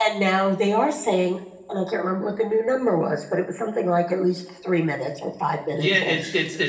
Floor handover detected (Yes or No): Yes